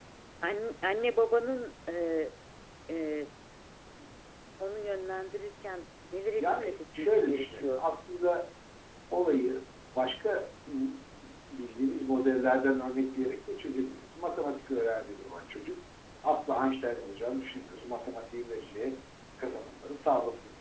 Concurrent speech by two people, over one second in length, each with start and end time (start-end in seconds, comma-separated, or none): 6.4-7.9